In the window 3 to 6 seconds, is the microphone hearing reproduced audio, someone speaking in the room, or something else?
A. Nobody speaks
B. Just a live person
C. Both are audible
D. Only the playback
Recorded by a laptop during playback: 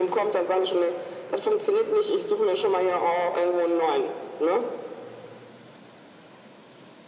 D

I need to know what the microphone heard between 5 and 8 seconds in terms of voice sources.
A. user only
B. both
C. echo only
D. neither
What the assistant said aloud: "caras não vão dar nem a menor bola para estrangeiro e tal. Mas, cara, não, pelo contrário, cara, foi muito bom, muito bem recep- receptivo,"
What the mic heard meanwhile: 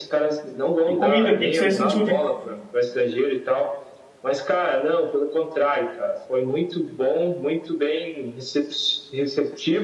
C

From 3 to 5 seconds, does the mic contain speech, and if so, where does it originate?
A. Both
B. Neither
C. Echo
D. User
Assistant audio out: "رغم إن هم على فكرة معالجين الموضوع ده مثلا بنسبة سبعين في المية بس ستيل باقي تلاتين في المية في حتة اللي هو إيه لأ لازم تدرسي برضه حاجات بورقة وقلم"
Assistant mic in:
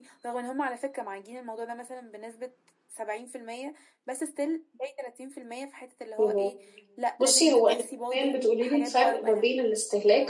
C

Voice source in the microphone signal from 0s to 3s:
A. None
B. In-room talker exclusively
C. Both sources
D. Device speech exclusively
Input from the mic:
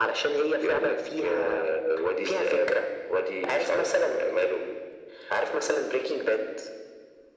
D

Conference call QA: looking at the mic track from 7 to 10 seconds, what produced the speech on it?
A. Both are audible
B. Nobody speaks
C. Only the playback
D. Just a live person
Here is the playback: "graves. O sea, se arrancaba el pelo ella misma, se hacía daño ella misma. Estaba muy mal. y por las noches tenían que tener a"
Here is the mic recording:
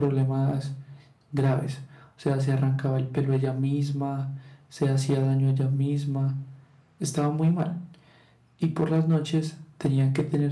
C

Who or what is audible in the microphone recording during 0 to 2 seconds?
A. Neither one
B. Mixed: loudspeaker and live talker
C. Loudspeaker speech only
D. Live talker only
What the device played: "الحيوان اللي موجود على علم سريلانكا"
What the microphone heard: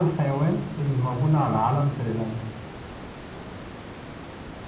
C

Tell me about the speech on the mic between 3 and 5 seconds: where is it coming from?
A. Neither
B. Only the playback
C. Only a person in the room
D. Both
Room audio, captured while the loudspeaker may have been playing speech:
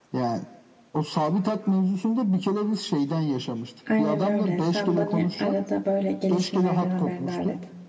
D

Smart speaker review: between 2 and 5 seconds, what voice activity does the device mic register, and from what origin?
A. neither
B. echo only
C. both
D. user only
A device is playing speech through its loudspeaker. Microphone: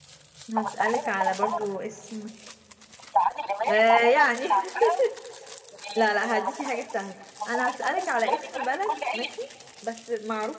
C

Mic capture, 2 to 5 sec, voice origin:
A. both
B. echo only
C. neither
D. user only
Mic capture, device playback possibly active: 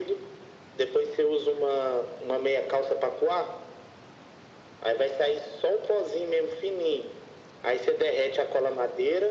B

